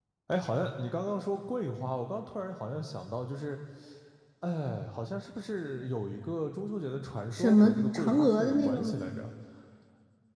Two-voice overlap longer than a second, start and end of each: 7.3-8.8

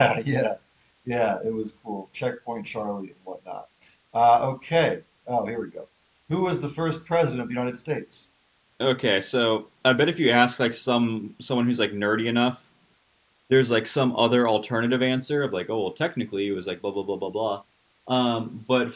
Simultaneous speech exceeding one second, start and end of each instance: none

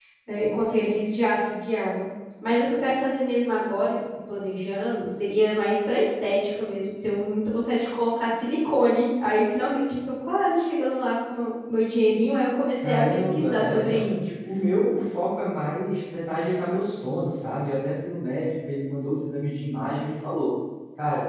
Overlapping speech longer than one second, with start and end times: 12.8-14.2

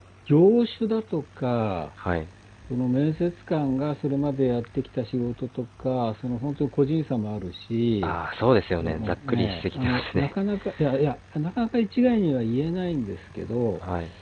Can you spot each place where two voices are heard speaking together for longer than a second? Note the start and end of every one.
8.8-10.3

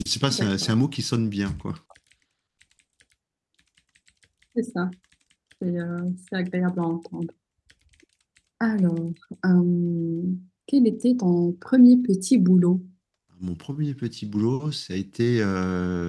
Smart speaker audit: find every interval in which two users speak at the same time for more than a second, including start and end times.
none

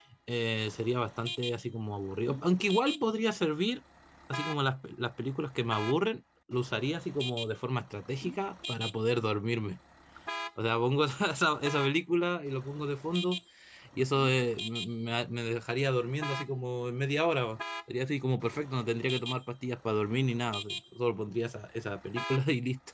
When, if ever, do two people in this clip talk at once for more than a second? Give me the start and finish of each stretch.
none

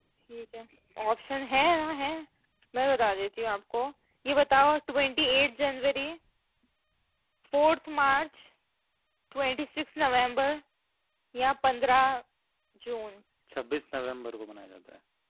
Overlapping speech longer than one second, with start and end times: none

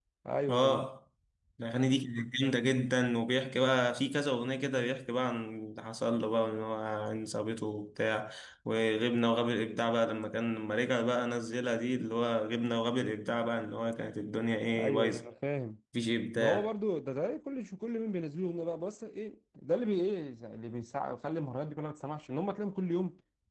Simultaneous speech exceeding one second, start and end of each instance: none

